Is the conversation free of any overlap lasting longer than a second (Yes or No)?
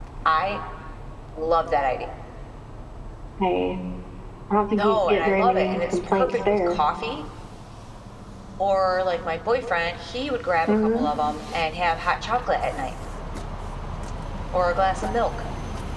No